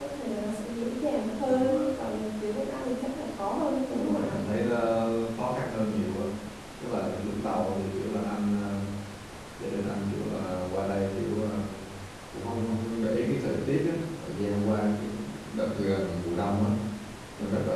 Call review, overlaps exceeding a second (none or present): none